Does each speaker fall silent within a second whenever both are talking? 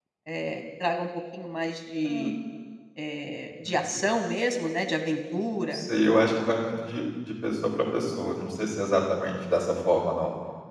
Yes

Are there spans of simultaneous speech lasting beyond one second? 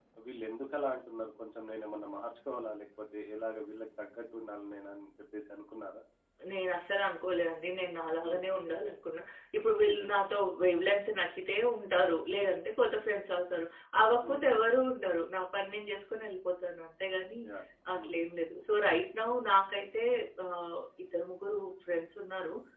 No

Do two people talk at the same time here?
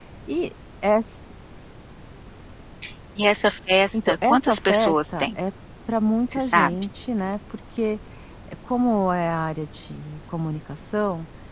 Yes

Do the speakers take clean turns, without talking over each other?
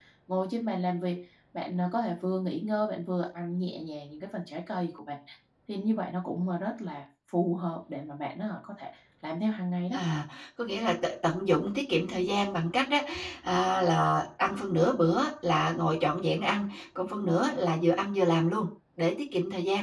Yes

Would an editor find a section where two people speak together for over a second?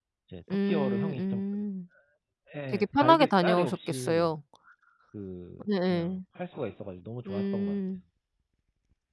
Yes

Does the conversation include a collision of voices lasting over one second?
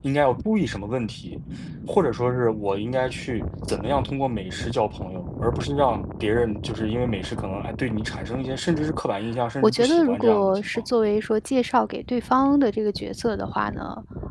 Yes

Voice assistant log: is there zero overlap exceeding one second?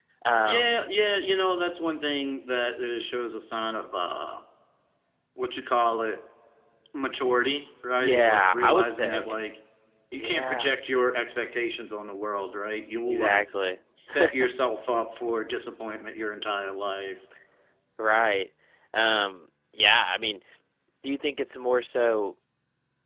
No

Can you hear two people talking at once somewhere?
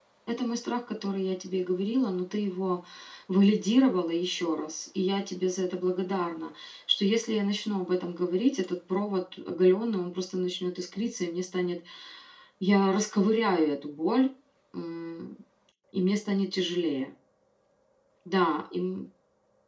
No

